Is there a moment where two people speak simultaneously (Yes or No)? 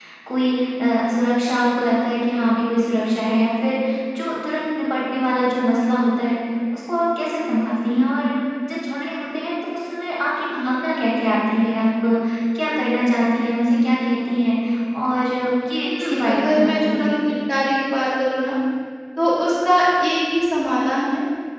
Yes